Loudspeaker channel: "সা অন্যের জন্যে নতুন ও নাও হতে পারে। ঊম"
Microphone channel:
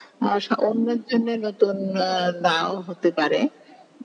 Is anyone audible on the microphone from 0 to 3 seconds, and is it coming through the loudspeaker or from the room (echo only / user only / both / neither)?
echo only